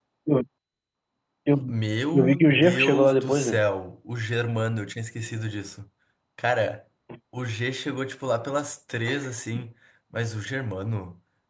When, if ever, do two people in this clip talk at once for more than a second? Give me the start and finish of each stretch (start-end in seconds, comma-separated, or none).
2.1-3.6